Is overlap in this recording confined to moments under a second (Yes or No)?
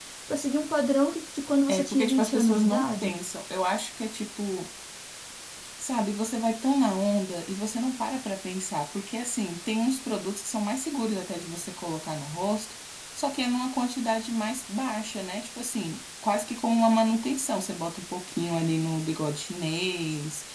No